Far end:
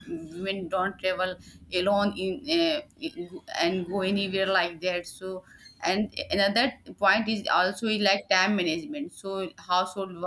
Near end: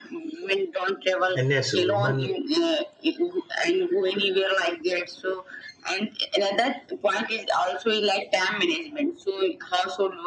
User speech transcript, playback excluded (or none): and yes women